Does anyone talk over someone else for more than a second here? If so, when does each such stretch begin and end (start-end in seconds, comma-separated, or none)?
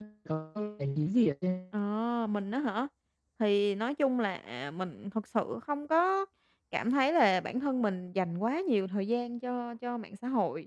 none